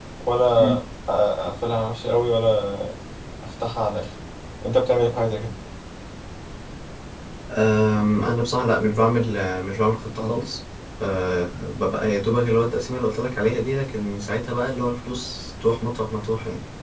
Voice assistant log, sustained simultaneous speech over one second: none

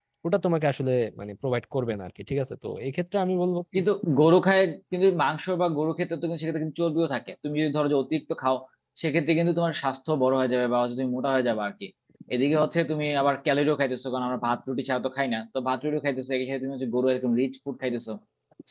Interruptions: none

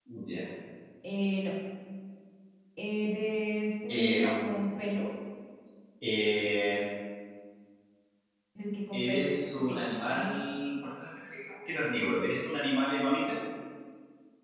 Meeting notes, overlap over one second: present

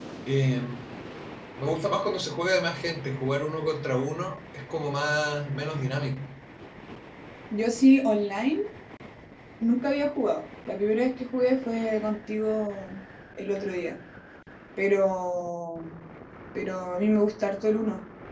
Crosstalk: none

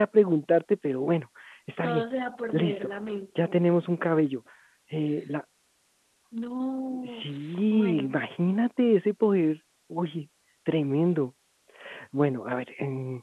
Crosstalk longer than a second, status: none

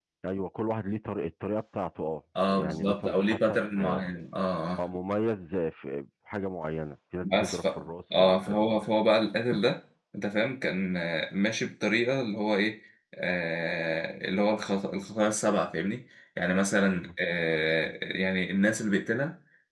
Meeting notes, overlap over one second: present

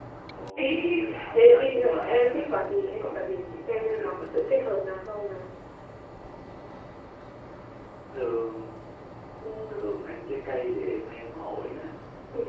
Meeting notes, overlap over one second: present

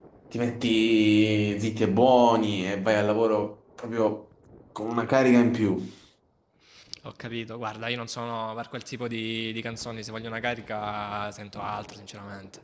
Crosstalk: none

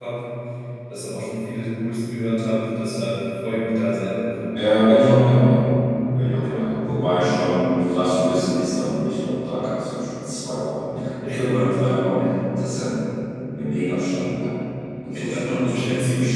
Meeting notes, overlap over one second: present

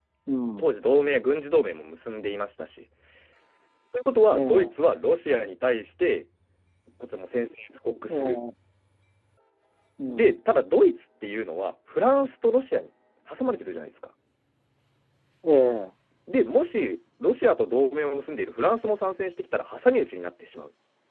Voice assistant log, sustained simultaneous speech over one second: none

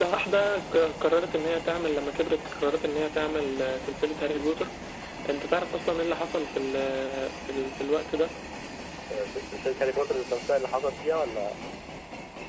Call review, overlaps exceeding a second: none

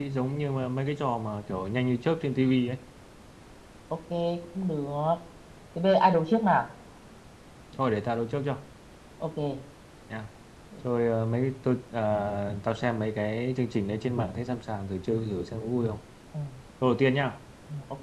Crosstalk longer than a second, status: none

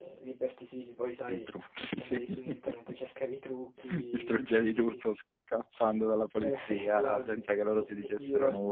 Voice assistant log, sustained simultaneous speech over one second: present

